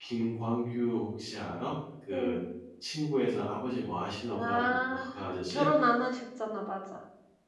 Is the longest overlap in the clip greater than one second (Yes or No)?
No